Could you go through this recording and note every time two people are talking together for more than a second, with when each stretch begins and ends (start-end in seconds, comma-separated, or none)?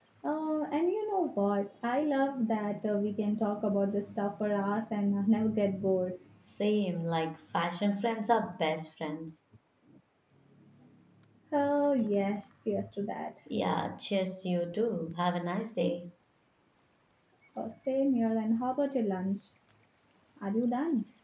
none